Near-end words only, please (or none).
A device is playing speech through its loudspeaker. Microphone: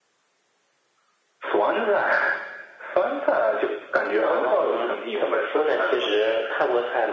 none